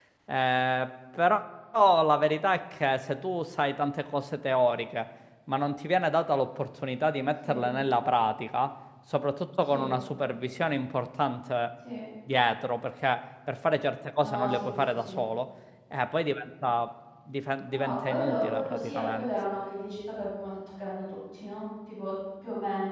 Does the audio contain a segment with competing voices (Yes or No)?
Yes